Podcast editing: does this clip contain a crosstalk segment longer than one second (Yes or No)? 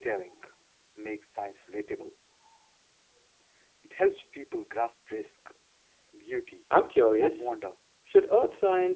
No